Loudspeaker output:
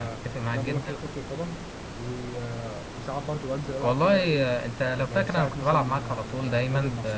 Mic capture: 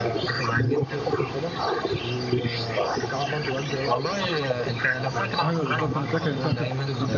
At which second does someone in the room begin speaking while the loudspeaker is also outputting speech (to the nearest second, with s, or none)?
5 s